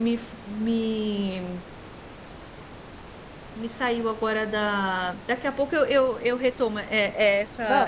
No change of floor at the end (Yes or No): Yes